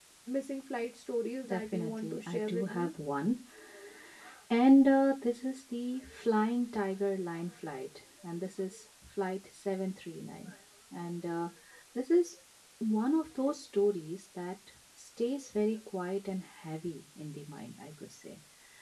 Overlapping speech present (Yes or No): Yes